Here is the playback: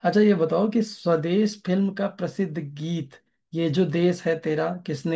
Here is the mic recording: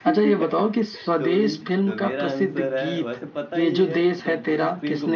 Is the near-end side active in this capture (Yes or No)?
Yes